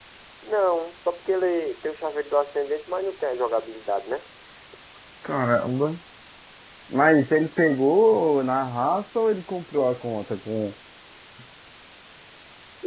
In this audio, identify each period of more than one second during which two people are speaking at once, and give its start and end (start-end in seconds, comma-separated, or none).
none